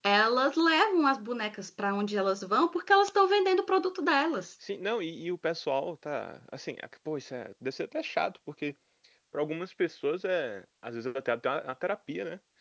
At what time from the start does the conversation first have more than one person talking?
none

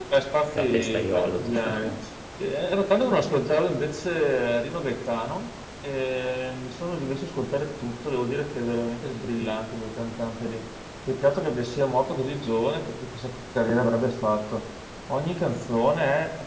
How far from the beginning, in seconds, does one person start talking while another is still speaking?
1 s

